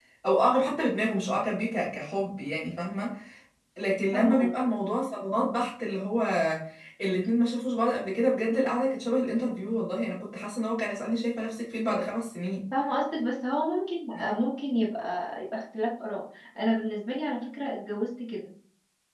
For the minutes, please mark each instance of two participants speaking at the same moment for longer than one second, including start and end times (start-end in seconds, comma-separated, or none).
none